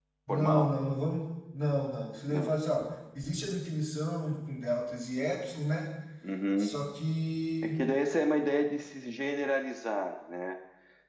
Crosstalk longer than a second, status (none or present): none